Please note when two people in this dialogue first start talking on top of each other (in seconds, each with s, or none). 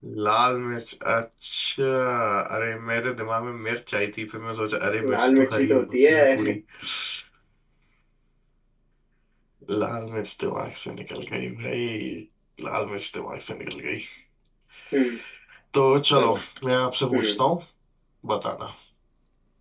5.0 s